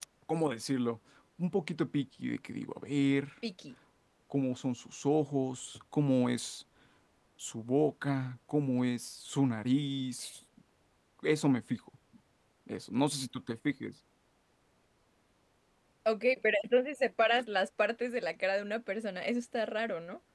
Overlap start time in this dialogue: none

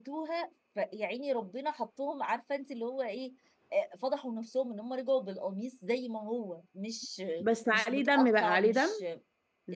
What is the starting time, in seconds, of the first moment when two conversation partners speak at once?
7.7 s

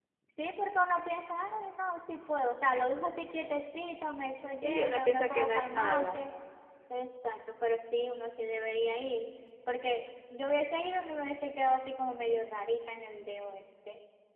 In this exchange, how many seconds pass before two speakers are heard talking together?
4.6 s

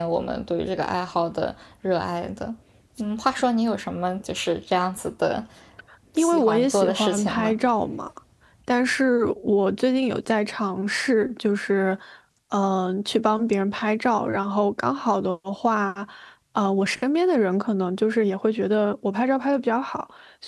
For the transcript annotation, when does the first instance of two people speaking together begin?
6.2 s

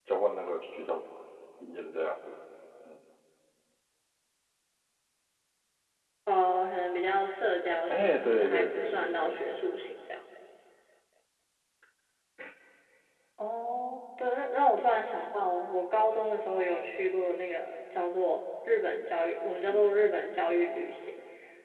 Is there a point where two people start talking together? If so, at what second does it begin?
7.9 s

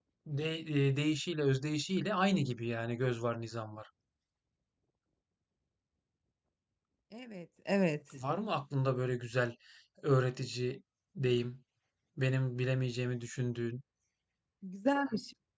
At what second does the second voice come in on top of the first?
none

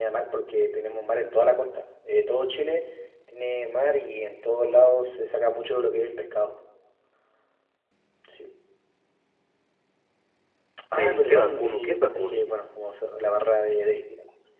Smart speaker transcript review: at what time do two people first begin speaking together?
10.9 s

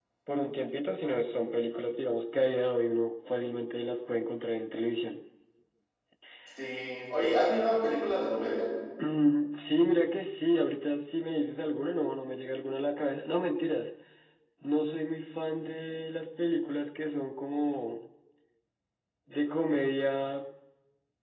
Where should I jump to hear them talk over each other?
none

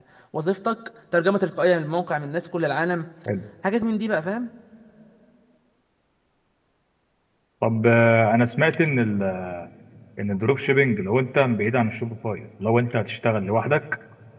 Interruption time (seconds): none

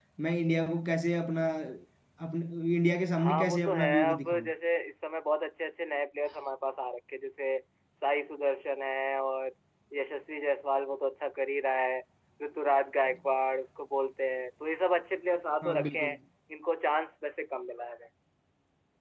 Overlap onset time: 3.2 s

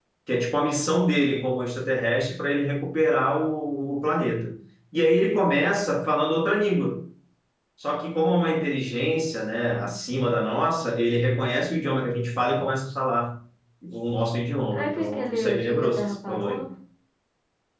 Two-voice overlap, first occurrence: 14.7 s

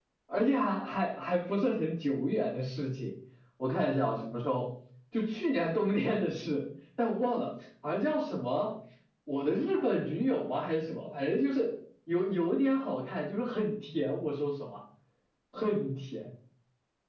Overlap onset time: none

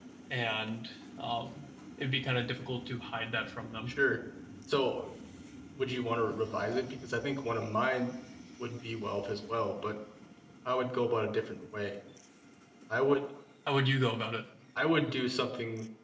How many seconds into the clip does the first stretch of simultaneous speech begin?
none

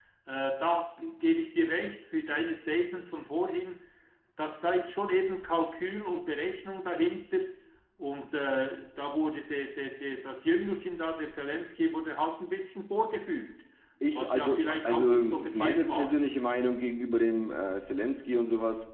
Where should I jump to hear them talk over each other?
14.1 s

